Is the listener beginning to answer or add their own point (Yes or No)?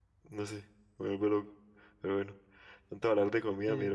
No